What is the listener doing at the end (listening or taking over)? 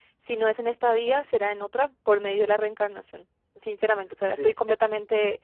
listening